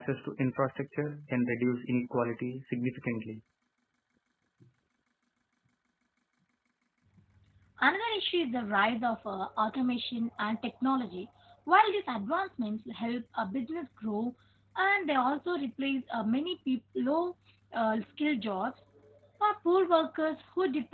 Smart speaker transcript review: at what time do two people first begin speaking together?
none

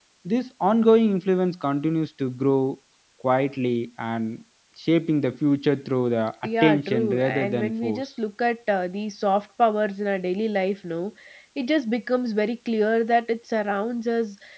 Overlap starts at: 6.4 s

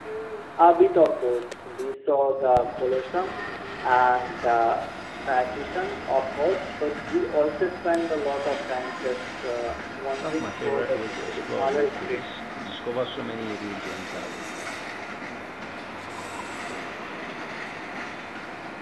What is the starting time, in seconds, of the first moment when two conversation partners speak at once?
10.2 s

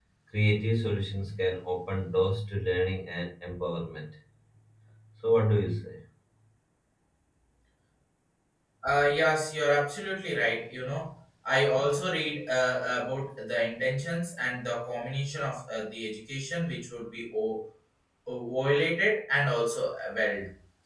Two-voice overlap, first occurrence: none

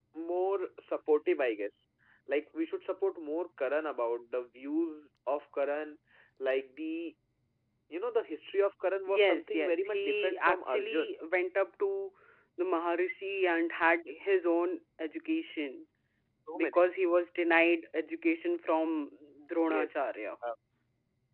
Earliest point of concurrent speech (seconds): 9.1 s

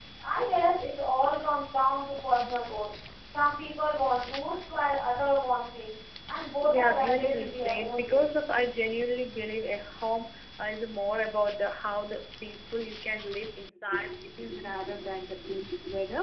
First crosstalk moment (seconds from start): 6.6 s

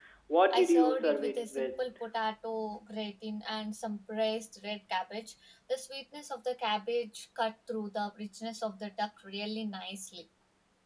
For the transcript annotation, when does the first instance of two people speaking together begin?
0.5 s

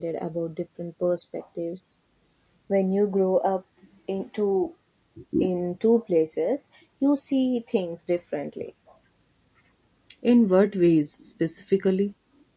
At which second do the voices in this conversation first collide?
none

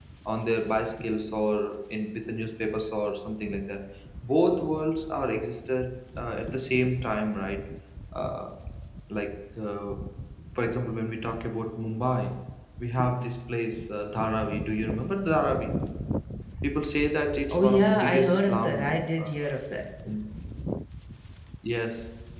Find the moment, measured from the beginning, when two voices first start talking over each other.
17.5 s

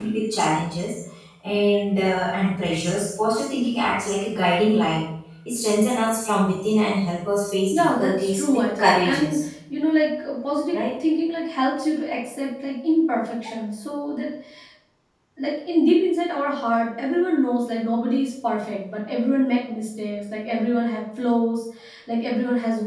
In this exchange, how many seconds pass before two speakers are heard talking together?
7.7 s

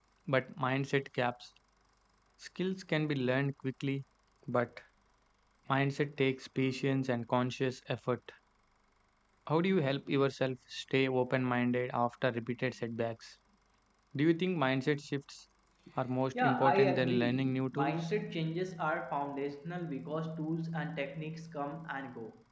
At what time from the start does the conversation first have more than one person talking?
16.3 s

